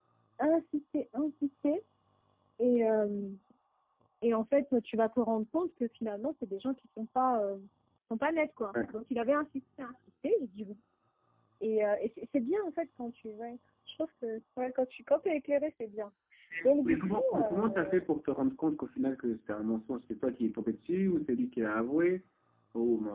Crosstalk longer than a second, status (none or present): present